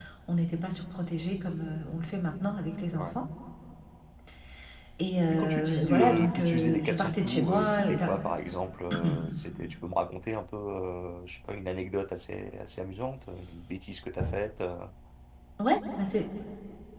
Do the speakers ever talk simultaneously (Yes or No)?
Yes